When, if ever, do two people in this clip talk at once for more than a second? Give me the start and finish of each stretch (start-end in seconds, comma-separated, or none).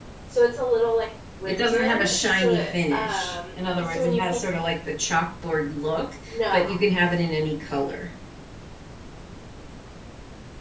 1.4-4.4